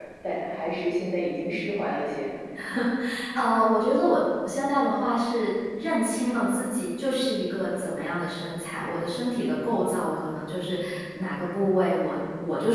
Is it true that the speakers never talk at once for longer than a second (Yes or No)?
Yes